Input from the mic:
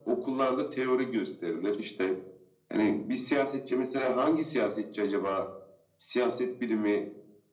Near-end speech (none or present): none